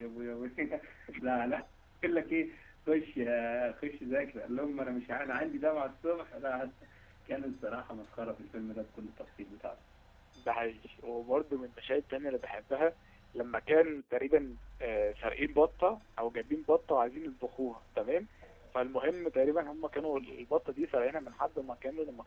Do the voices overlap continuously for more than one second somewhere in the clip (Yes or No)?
No